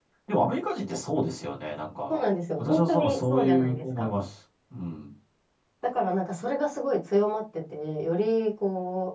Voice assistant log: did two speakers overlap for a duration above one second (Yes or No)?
Yes